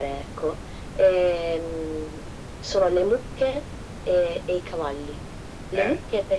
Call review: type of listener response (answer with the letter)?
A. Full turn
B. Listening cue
B